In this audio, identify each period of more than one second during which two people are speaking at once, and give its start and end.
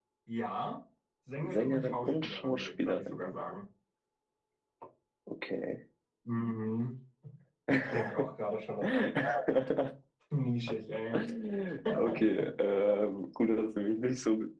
1.4-3.2

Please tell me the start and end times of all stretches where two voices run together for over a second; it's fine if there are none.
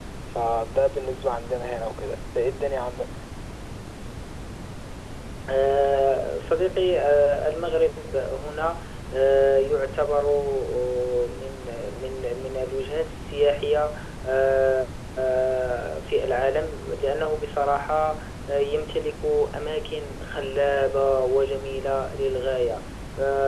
none

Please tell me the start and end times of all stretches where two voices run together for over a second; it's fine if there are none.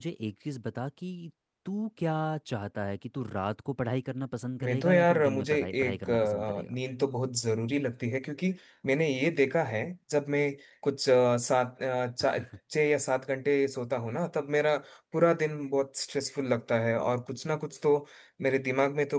4.6-6.7

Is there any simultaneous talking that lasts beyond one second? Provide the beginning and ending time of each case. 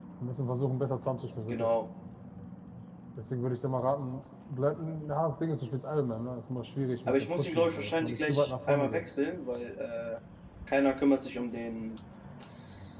7.1-9.0

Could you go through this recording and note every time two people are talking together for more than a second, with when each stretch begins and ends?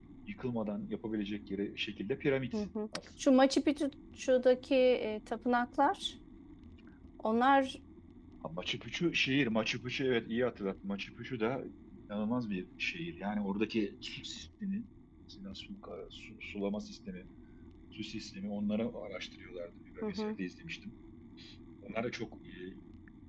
none

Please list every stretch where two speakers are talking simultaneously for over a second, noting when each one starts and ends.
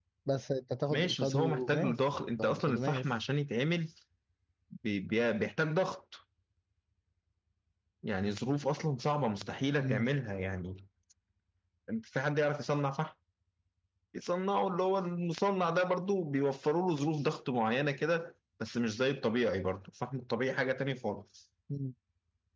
0.9-3.1

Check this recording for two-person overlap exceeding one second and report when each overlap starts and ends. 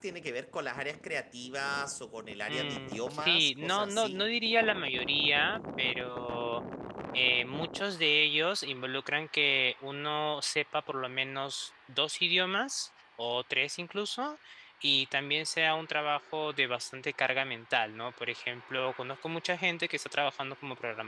2.5-4.2

